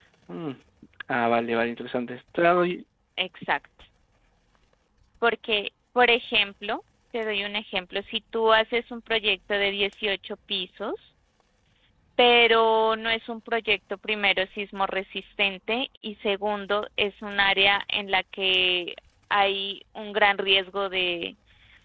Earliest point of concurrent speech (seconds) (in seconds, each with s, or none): none